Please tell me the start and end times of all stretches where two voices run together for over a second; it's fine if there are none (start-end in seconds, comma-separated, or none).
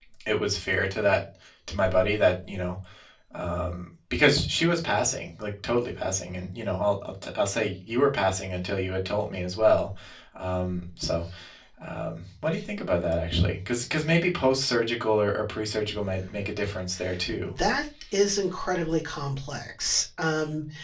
none